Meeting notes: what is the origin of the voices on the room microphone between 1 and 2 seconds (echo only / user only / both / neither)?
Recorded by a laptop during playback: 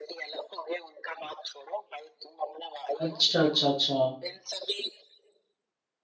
echo only